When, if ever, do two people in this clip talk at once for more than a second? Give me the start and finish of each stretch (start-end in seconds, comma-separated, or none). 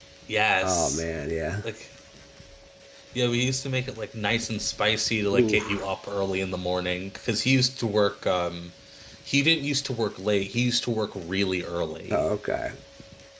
none